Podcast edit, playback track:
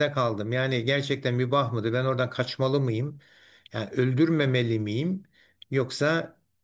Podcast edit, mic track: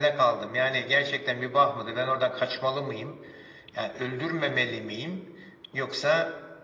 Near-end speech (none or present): none